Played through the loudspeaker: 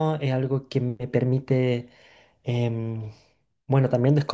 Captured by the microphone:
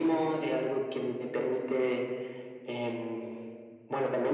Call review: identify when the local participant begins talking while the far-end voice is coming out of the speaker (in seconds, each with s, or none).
none